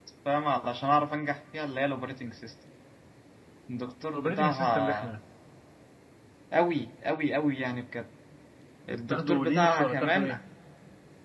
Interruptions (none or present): present